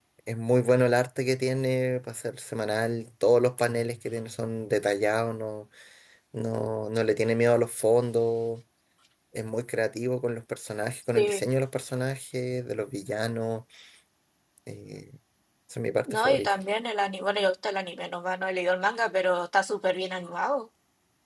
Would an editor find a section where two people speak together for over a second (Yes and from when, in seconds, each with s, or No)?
No